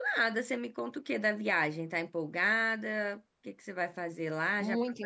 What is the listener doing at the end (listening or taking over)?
taking over